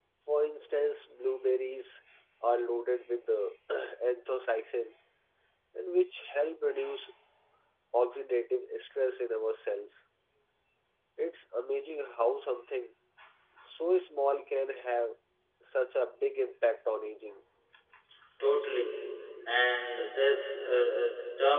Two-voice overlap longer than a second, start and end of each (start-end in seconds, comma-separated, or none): none